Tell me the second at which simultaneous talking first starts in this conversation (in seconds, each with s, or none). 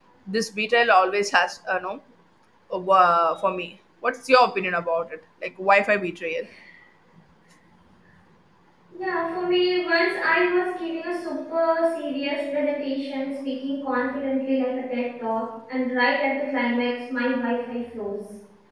none